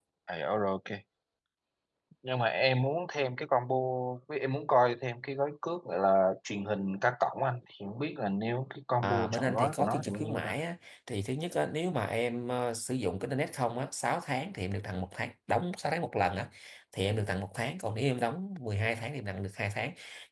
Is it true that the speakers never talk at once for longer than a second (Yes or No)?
No